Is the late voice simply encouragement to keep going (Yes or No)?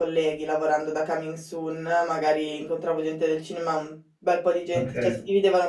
Yes